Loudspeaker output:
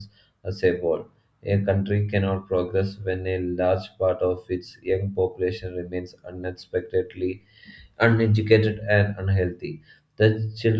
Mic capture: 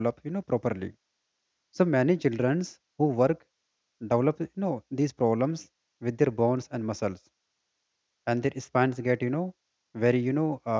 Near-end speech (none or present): present